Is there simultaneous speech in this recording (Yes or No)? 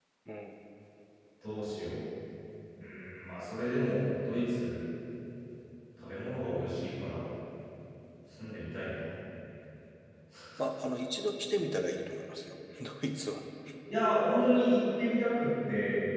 No